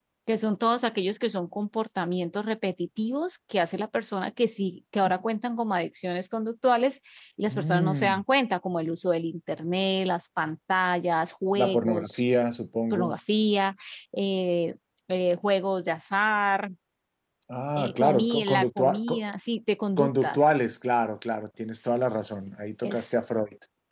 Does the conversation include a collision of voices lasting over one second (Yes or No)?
Yes